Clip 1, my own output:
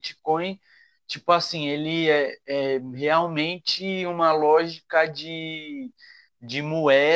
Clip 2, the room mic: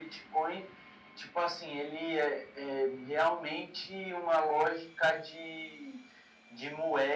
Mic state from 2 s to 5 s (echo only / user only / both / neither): echo only